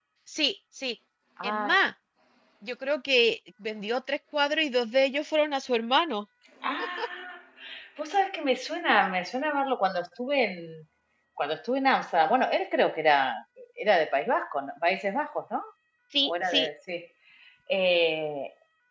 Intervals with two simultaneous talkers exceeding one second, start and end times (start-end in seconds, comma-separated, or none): none